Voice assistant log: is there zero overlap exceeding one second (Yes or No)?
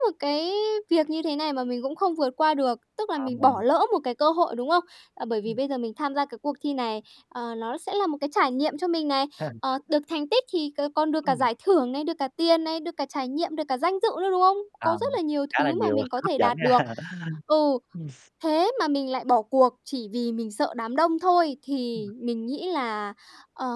No